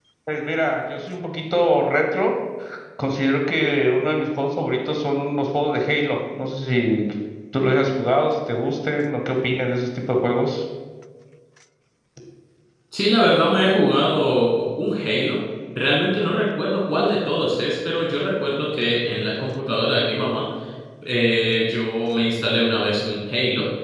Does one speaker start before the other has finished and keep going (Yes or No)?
No